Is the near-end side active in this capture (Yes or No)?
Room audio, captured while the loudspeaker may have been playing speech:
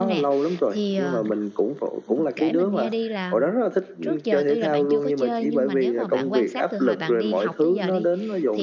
Yes